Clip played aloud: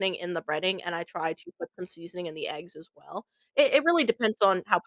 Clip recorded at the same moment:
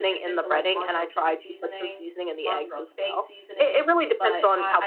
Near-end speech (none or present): present